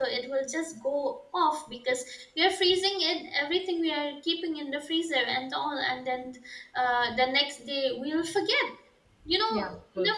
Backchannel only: Yes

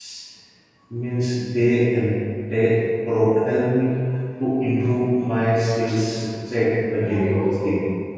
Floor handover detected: Yes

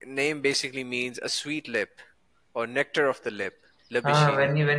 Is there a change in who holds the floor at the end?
Yes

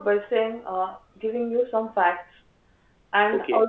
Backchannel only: Yes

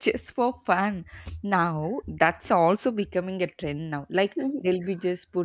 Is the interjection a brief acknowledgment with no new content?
Yes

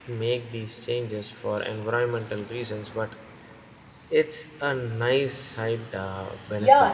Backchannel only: No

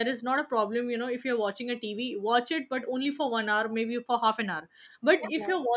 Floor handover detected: No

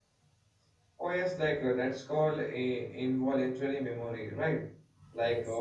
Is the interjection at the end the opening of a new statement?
No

